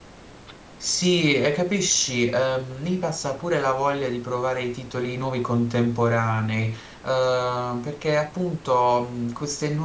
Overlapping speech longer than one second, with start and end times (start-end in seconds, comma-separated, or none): none